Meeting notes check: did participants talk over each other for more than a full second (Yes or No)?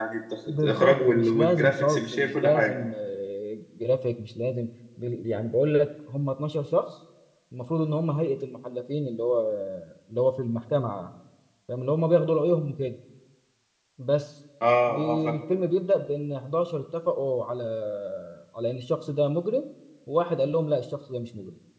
Yes